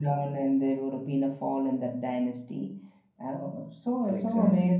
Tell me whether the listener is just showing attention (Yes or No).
Yes